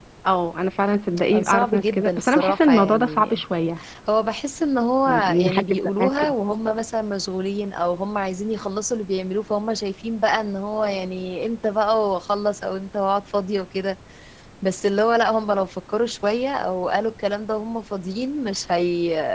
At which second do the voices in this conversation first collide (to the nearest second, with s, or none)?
1 s